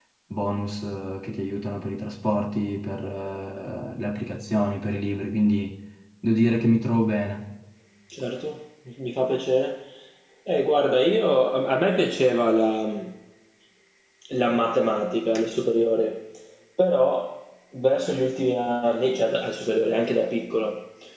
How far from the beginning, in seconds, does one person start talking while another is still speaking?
none

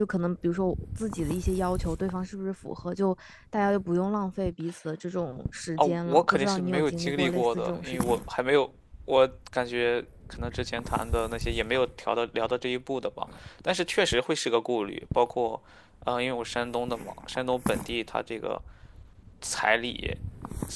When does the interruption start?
5.8 s

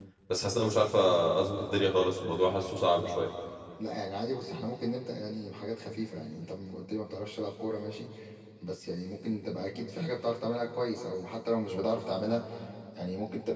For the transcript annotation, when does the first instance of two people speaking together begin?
none

